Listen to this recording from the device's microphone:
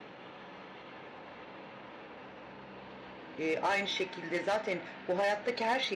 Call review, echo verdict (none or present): none